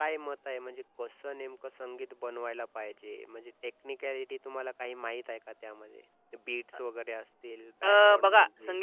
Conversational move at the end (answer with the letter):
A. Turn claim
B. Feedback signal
A